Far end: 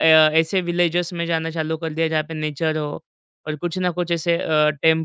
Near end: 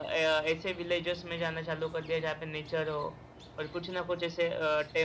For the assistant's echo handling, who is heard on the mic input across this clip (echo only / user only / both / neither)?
echo only